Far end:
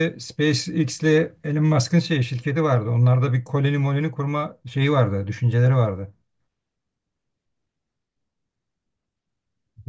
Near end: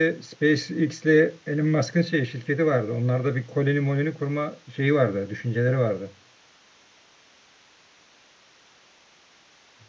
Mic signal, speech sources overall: echo only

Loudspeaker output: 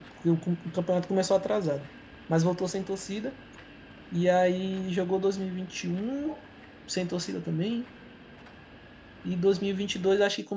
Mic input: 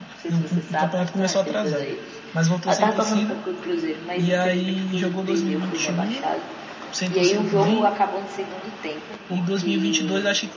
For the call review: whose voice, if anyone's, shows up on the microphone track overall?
both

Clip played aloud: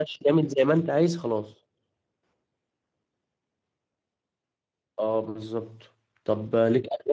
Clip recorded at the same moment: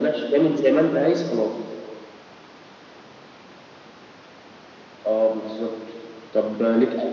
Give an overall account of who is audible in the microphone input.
echo only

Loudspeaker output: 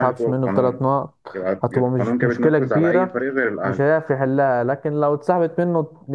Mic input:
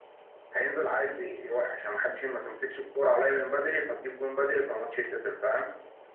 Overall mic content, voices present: user only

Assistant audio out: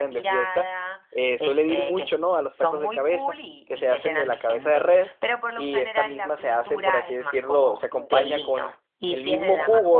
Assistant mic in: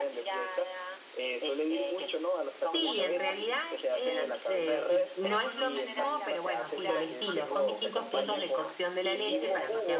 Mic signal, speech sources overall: both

